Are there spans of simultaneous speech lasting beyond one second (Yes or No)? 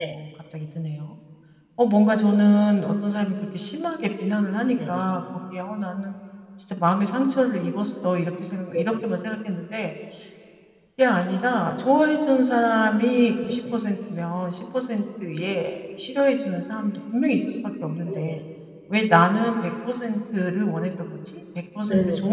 No